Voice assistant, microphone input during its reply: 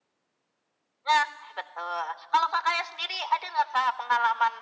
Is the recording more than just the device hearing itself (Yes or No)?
No